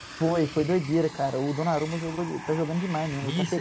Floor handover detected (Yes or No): Yes